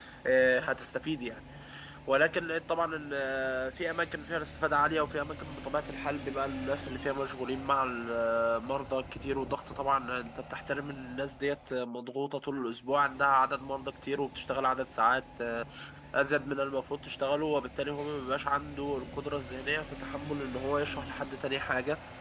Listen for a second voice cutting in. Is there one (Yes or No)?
No